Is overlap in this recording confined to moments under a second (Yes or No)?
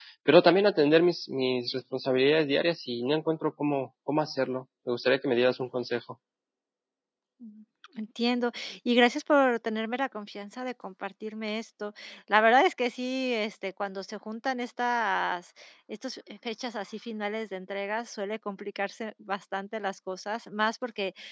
Yes